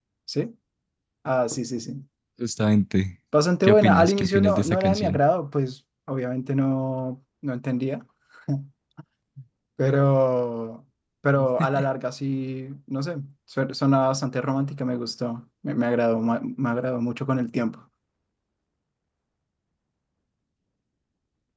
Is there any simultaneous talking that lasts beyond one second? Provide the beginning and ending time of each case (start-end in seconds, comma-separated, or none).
3.6-5.2